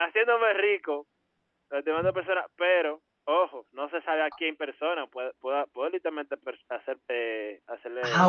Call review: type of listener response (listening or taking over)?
taking over